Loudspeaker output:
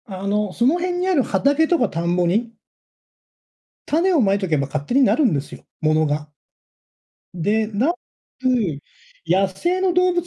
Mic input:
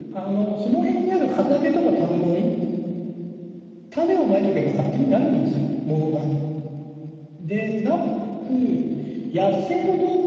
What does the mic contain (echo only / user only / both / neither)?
echo only